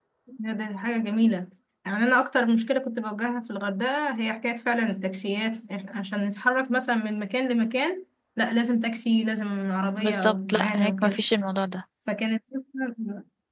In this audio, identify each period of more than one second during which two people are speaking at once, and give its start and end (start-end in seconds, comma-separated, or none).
10.0-11.2